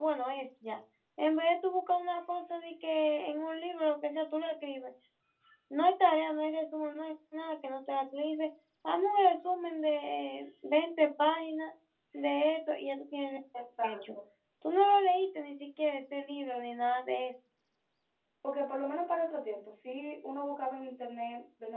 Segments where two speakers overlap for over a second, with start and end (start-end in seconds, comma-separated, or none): none